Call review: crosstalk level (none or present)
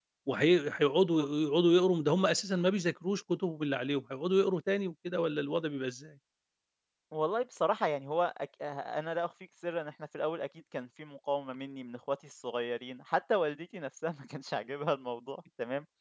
none